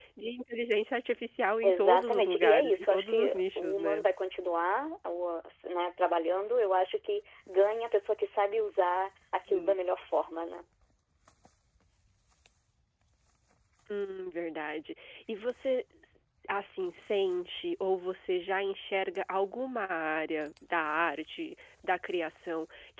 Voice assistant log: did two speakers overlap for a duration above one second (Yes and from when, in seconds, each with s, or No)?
Yes, from 1.6 s